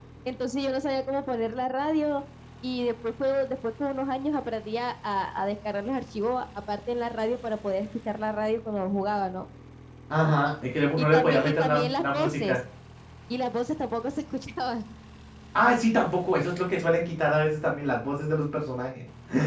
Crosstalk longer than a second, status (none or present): present